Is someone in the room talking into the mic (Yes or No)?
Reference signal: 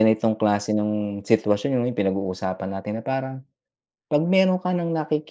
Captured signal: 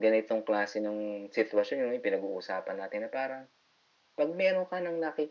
No